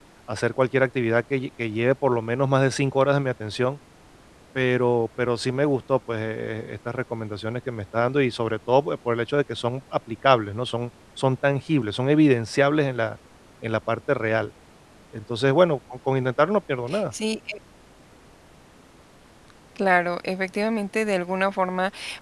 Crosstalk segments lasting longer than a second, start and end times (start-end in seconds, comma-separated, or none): none